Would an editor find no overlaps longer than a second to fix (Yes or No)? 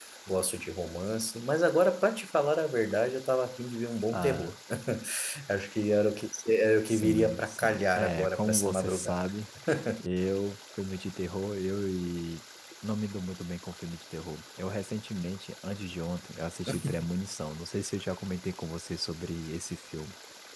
No